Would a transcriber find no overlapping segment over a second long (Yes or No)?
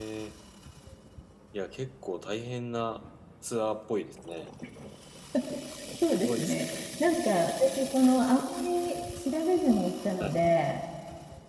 Yes